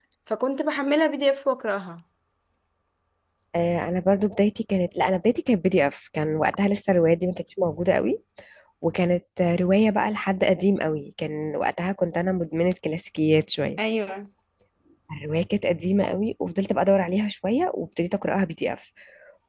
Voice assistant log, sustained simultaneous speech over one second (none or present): none